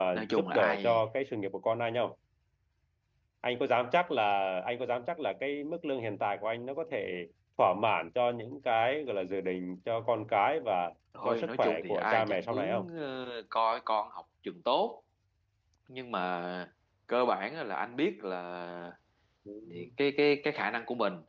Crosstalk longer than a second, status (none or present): present